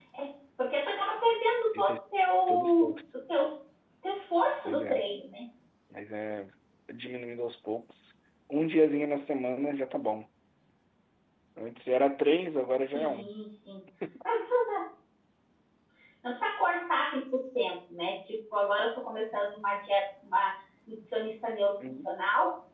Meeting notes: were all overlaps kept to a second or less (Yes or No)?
Yes